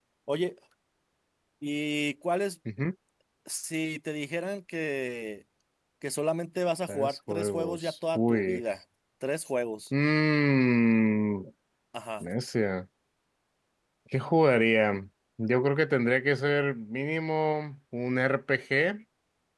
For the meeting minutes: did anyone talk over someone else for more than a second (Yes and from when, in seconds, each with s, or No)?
Yes, from 6.9 s